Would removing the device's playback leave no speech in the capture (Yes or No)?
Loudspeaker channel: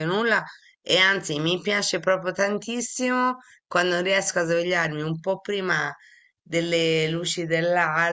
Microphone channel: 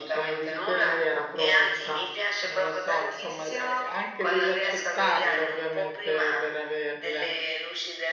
No